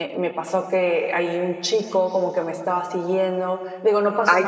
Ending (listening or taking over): listening